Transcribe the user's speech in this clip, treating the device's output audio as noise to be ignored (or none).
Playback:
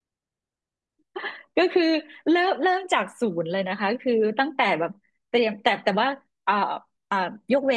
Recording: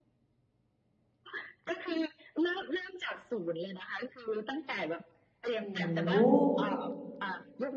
โห